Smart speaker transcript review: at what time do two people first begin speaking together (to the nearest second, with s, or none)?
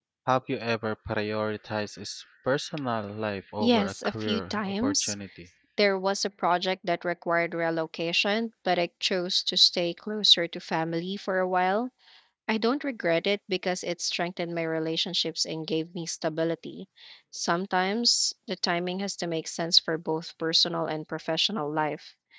4 s